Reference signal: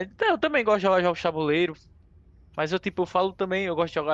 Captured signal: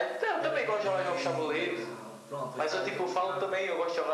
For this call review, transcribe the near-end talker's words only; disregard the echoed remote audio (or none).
Era bem legal. Pronto, esse aí saía, eu gostava